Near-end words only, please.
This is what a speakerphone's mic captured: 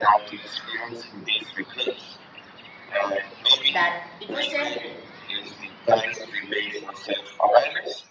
that it was temporary,

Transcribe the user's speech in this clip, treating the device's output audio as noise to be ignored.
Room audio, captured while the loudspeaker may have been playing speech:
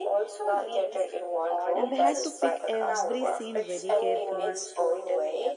And they had to pick every scene very carefully,

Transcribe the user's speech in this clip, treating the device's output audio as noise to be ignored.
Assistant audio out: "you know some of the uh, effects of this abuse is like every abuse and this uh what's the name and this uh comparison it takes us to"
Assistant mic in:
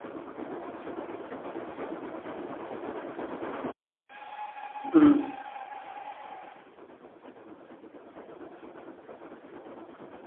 mm.

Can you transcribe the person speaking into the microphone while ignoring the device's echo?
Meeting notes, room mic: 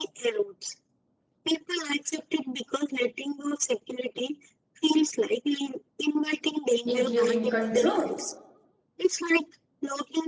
including control.

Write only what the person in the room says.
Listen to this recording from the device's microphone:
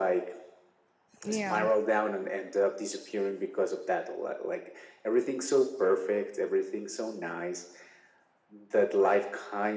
Yeah,

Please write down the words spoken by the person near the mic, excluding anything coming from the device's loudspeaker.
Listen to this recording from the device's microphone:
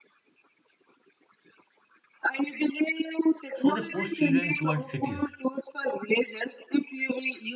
So they push children towards cities

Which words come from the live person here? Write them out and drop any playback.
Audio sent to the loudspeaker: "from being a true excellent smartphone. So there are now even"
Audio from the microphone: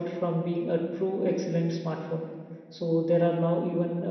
none

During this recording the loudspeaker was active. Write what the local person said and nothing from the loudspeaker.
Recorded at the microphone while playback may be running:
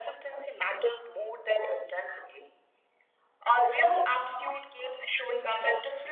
none

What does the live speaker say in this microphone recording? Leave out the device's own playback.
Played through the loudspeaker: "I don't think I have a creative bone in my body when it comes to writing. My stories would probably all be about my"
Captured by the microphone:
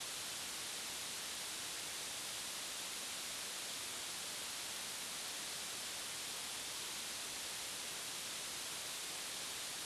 none

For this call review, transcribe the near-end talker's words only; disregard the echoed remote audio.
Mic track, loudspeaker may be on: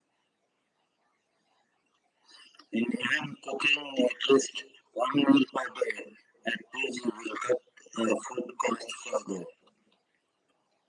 none

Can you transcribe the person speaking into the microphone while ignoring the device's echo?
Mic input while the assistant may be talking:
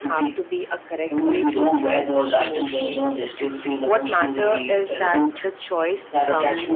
none

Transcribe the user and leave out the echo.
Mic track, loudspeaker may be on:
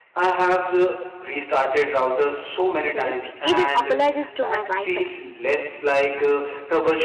sorry, even apologies to my Wi Fi.

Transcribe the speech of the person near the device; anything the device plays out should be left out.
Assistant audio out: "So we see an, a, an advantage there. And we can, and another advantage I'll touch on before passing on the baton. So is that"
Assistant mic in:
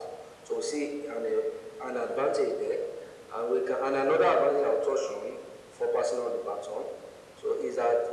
none

